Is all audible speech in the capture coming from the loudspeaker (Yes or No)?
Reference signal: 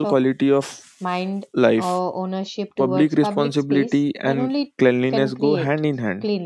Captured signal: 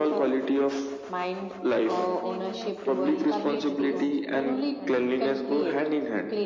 No